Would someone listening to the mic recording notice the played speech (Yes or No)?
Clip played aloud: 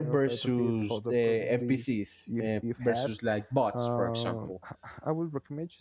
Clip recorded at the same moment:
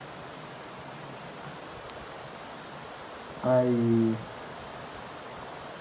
No